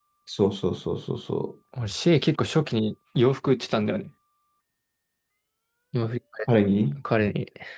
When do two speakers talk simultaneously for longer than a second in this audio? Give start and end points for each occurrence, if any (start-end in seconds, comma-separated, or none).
none